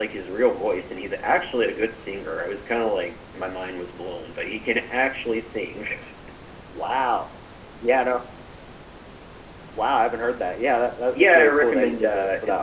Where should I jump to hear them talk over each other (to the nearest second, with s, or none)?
11 s